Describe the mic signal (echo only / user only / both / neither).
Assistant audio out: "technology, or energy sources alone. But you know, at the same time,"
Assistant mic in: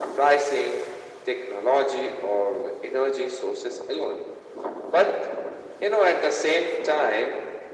echo only